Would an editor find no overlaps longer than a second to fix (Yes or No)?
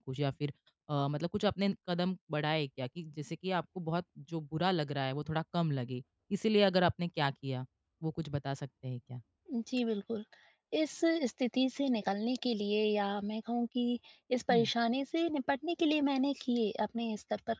Yes